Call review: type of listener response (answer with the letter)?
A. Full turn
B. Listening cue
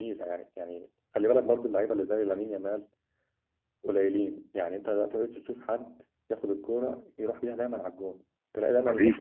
B